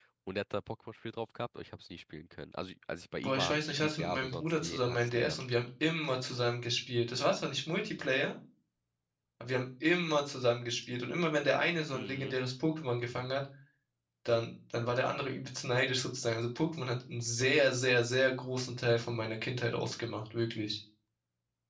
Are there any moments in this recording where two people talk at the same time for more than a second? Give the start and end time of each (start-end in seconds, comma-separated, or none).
3.2-5.4